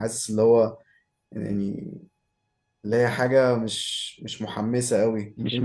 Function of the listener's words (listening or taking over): listening